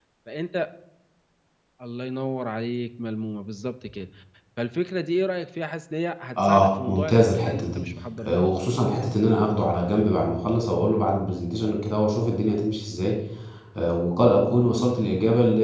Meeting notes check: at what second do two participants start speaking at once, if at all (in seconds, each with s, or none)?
6.4 s